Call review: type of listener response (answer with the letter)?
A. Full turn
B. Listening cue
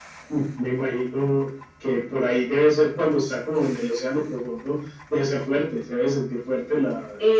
A